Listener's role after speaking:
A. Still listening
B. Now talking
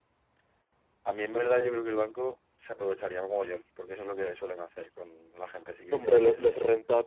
B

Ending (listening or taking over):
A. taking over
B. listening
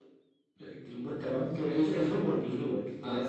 B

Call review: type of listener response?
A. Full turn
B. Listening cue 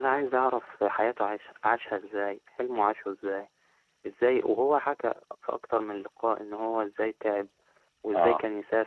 B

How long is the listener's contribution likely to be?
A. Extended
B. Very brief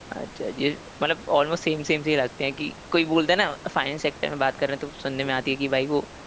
B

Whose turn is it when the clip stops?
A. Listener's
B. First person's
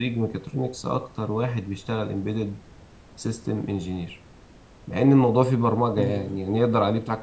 B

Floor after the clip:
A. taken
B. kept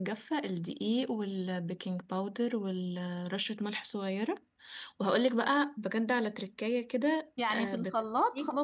A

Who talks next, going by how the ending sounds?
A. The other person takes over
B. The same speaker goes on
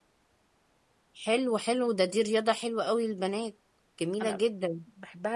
A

